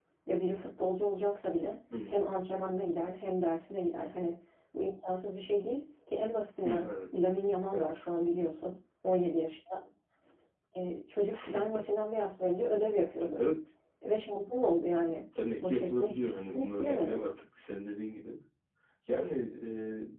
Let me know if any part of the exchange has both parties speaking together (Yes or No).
Yes